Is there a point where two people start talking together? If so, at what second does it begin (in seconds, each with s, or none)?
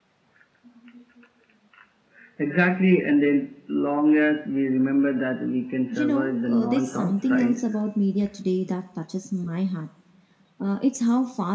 5.9 s